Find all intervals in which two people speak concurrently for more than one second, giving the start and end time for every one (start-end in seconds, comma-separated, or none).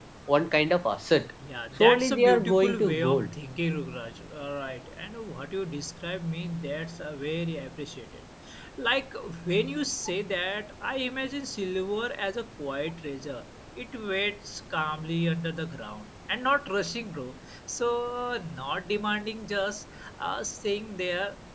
1.8-3.3